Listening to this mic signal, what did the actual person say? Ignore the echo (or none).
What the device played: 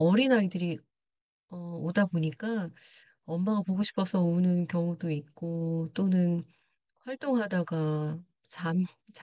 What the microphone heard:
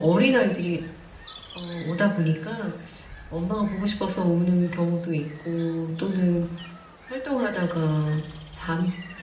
none